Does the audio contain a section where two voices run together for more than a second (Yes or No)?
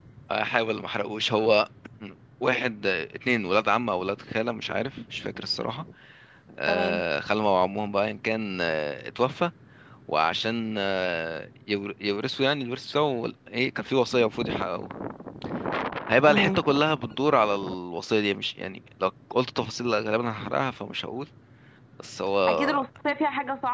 No